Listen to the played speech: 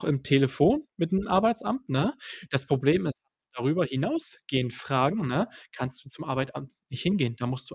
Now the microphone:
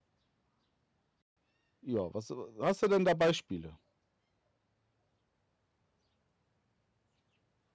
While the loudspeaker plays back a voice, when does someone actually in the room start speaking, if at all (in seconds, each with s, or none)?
1.8 s